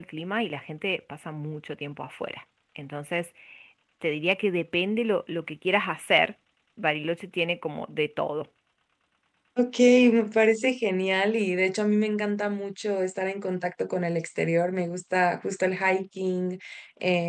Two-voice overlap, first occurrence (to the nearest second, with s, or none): none